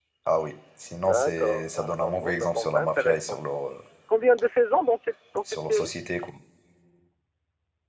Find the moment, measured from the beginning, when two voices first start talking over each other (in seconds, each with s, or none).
1.1 s